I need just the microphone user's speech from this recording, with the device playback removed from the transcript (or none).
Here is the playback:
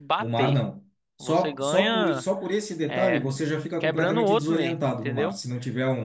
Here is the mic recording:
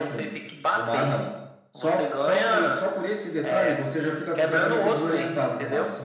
none